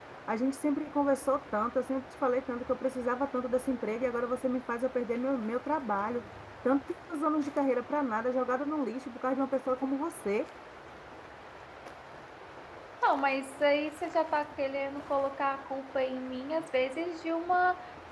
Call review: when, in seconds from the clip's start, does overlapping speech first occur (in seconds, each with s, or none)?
none